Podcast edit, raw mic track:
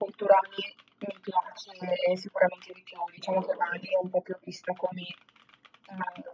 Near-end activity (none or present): present